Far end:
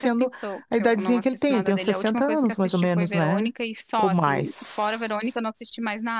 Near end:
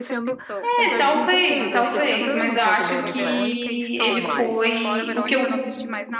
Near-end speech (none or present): present